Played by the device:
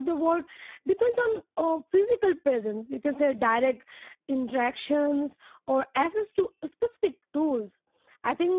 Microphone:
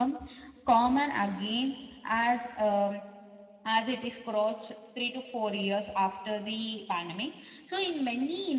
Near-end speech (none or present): present